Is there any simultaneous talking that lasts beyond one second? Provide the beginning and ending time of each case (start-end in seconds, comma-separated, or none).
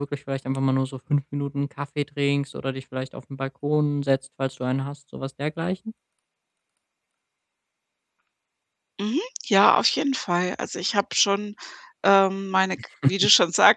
none